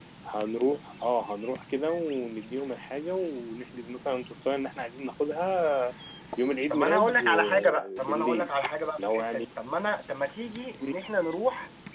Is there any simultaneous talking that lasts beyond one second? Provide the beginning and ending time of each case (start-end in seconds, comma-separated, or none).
6.7-8.5